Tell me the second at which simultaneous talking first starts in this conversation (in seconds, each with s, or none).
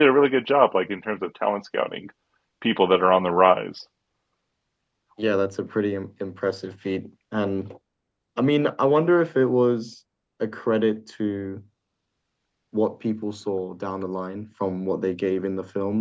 none